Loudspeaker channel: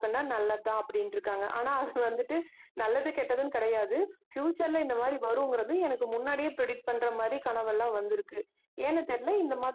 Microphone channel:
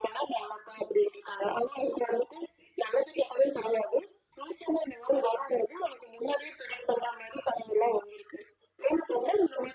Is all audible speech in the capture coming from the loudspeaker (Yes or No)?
Yes